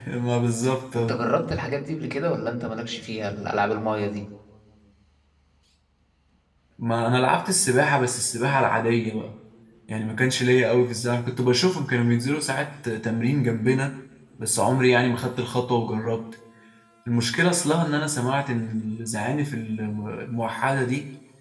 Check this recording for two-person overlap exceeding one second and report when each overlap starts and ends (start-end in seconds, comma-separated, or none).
none